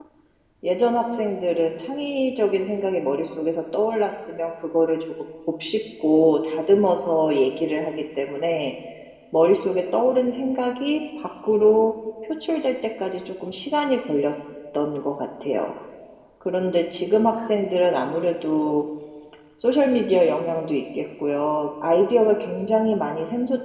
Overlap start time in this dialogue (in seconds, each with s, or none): none